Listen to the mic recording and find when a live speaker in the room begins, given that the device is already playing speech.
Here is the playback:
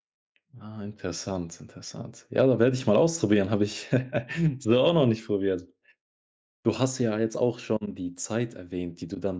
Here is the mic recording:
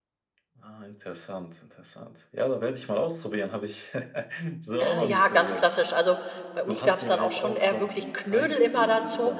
4.8 s

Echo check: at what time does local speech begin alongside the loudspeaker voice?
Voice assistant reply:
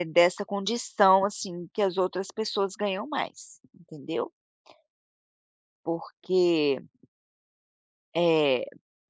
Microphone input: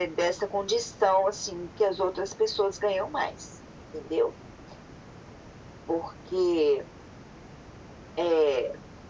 none

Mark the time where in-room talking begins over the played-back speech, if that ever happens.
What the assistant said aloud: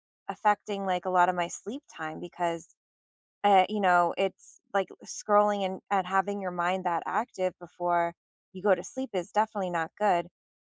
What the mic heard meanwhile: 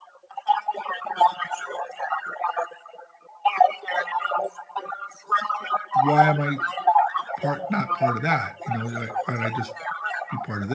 5.9 s

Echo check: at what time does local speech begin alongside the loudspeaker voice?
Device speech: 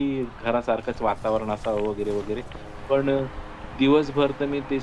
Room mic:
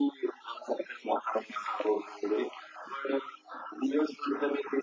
none

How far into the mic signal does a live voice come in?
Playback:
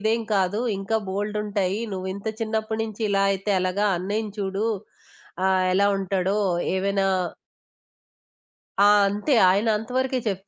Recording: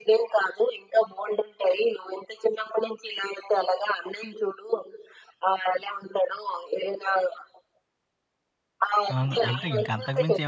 9.2 s

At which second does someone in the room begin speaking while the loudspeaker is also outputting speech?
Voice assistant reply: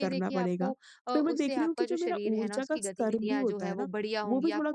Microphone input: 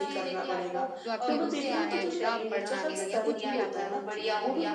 1.0 s

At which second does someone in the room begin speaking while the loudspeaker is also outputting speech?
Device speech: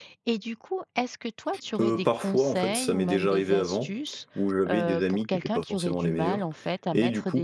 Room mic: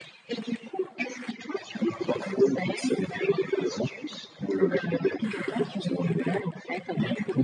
4.6 s

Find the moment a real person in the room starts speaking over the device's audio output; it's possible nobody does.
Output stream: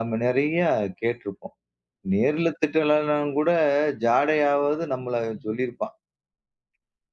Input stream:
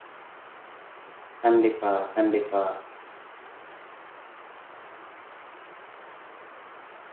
1.4 s

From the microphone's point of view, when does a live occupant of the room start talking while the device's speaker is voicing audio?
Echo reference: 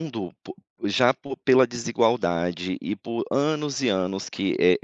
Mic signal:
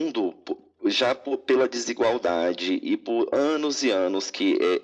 none

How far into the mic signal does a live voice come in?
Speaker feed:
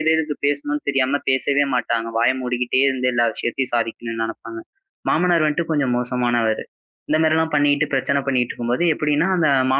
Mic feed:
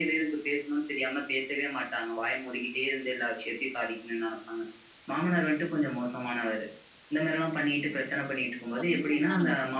8.8 s

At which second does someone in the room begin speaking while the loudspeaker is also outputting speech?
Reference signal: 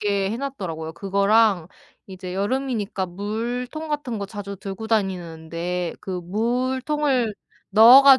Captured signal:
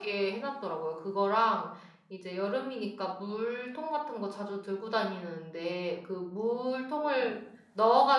none

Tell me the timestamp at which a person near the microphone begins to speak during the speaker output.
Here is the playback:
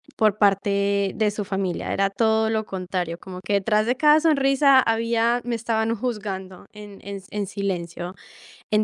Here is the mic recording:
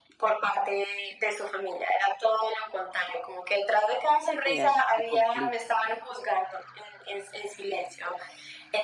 4.4 s

